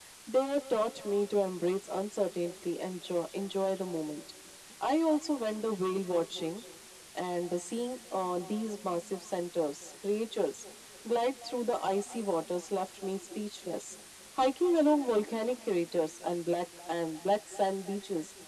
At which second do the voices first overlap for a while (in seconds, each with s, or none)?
none